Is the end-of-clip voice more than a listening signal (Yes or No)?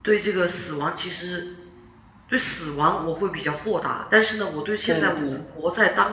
No